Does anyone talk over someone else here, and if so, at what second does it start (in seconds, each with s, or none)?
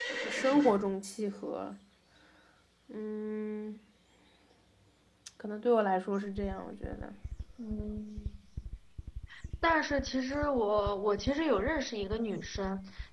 none